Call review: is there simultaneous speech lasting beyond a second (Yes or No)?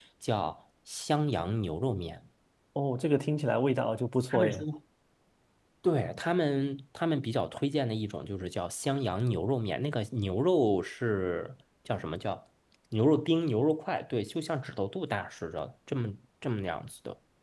No